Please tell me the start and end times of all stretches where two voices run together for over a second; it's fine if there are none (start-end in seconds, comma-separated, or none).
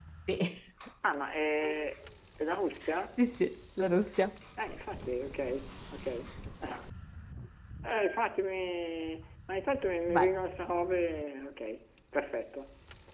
none